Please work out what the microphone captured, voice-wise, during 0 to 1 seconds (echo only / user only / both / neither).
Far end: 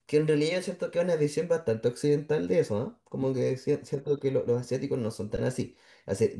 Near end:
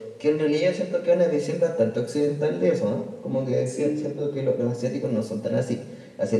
echo only